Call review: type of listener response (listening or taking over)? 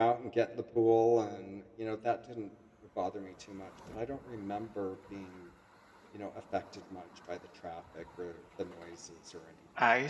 taking over